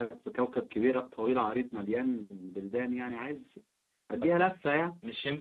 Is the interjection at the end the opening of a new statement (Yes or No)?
Yes